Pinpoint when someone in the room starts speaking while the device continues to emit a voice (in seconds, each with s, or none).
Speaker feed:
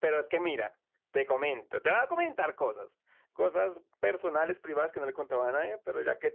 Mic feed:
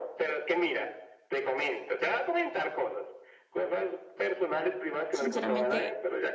5.1 s